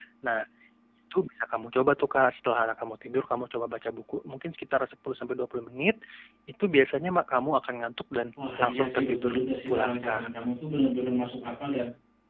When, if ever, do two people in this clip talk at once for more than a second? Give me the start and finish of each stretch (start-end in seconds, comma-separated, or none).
8.6-10.3